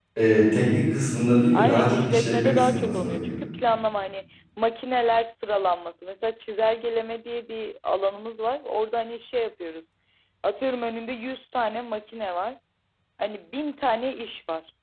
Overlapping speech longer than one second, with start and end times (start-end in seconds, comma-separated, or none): 1.5-3.4